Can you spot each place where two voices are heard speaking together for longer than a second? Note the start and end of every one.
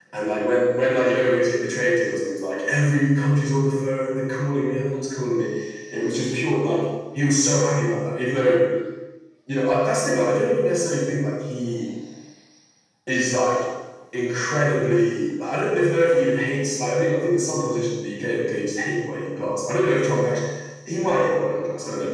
none

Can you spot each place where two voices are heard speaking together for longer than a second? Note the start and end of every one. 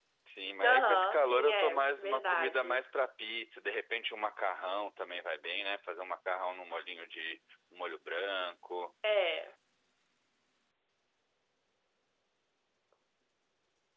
0.6-2.8

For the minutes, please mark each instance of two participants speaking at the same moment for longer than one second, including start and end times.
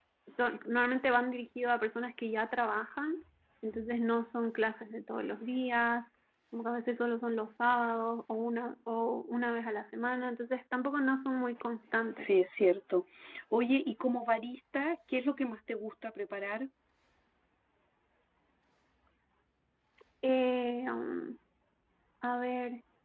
none

